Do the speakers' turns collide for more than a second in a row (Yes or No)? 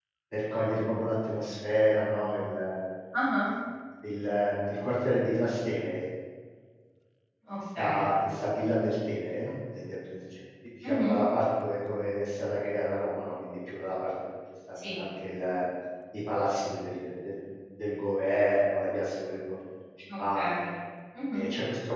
No